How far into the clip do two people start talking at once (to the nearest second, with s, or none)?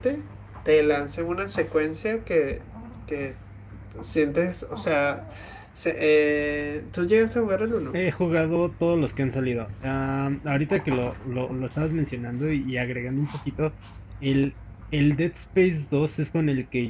none